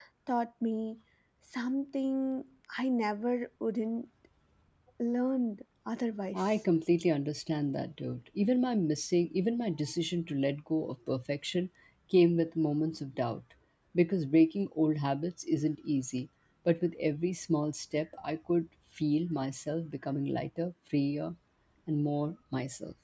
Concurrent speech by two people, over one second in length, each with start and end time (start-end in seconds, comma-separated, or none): none